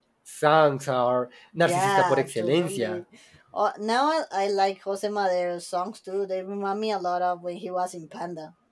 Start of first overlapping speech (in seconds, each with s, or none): 1.5 s